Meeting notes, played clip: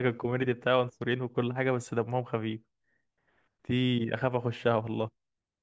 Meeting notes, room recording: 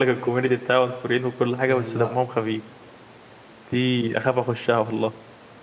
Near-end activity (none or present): present